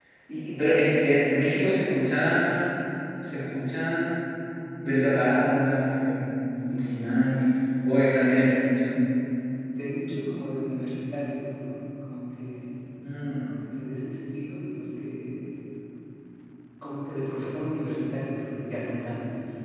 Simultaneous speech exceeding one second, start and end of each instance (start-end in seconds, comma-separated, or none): none